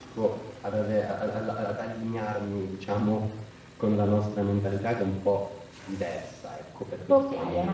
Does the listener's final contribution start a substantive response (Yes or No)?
Yes